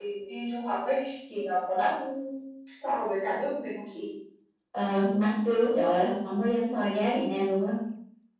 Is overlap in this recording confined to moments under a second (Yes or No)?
Yes